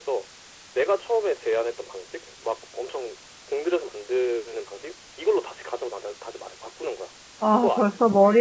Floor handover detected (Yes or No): Yes